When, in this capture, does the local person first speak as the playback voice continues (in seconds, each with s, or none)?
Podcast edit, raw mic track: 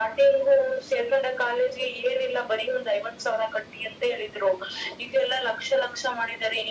none